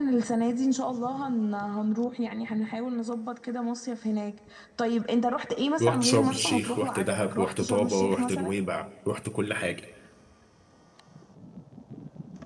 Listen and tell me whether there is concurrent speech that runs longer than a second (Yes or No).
Yes